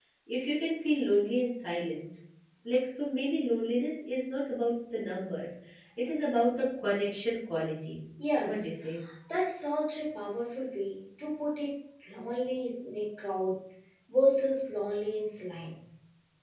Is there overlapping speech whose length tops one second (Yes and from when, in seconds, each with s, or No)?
No